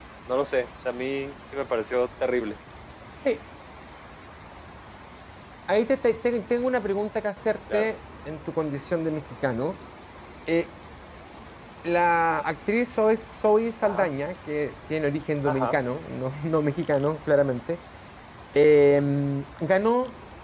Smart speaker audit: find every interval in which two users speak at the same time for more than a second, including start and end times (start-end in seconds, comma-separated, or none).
none